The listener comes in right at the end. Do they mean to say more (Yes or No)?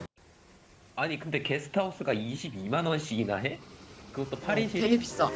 Yes